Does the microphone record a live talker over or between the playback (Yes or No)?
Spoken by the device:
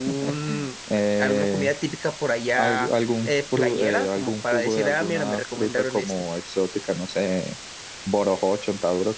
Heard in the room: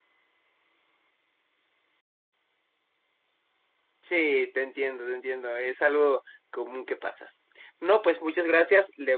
Yes